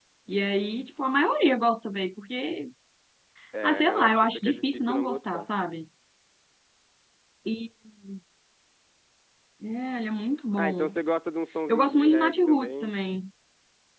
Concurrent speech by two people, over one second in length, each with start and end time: 3.6-5.5, 11.7-12.9

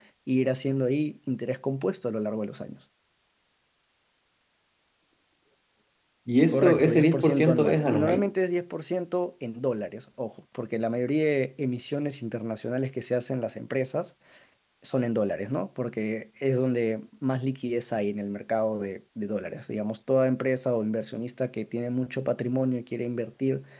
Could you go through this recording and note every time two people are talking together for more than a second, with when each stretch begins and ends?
6.5-8.3

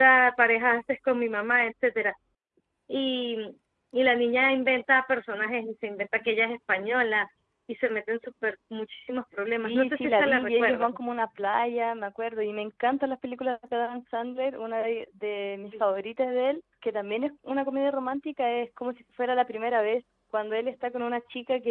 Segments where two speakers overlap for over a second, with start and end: 9.6-10.9

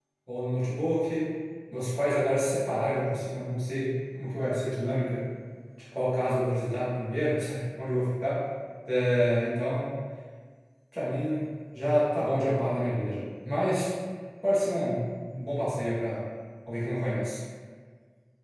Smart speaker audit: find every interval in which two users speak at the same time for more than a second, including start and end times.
none

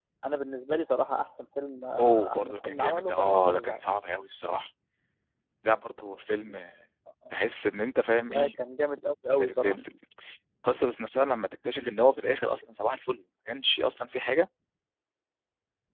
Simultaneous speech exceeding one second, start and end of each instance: 2.0-3.8

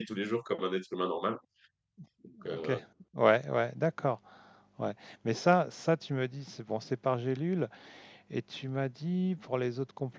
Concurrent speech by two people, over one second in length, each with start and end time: none

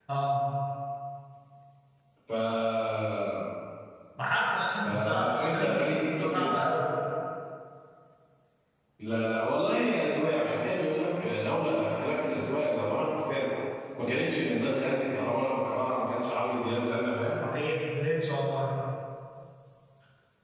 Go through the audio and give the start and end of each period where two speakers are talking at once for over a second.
4.8-6.6

